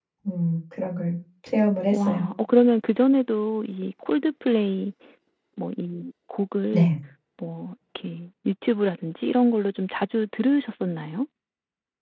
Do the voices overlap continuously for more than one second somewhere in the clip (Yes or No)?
No